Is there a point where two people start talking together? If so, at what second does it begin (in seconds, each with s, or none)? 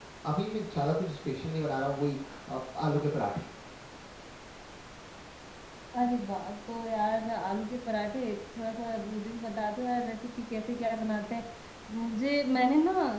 none